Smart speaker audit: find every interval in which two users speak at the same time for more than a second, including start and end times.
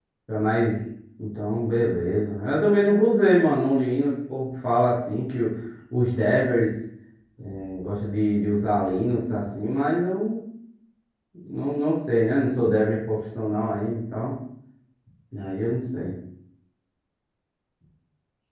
none

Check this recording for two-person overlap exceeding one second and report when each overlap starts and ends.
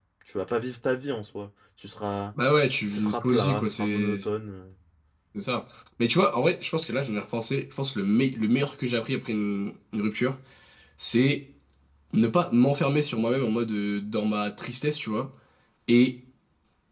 2.9-4.2

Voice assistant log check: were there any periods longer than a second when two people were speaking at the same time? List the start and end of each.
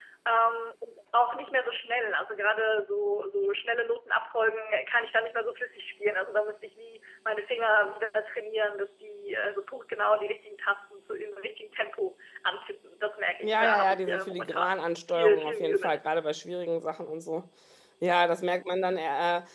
13.4-16.0

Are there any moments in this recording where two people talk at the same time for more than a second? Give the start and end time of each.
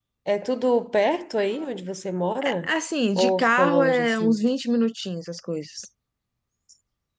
3.2-4.4

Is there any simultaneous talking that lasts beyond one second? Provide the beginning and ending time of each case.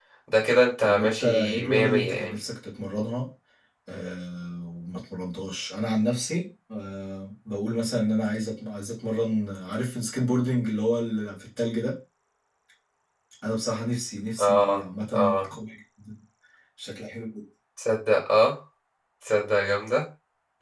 0.8-2.4

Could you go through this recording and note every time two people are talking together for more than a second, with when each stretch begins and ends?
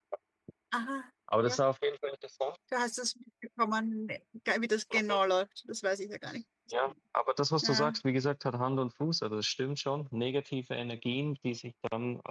none

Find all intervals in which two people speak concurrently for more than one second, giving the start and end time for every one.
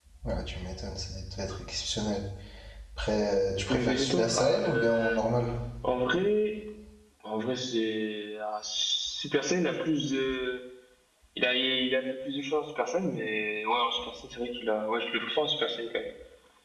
3.7-5.2

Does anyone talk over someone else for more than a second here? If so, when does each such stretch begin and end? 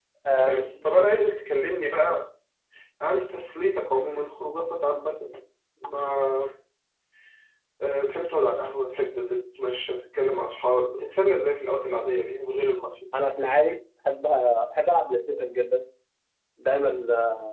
none

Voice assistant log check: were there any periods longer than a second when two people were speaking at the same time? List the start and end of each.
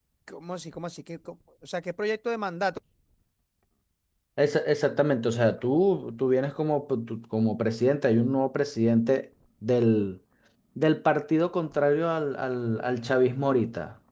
none

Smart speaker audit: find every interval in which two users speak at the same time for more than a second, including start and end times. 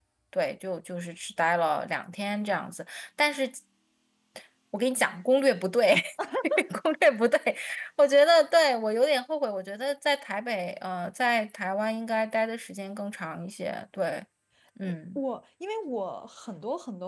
none

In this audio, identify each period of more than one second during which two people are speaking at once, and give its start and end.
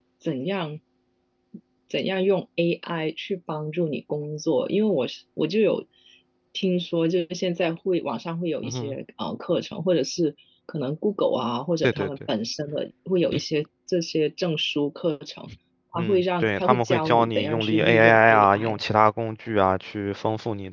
15.9-18.8

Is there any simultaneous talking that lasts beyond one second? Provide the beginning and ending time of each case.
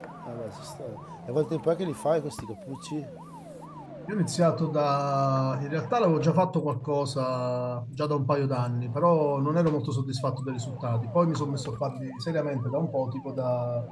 none

